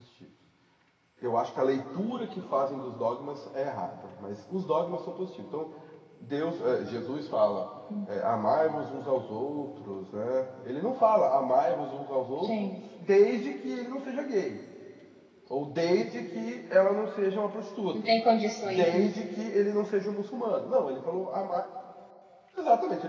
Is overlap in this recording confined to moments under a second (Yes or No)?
Yes